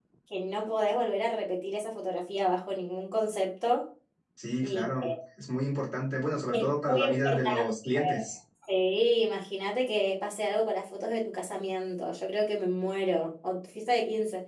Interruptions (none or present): present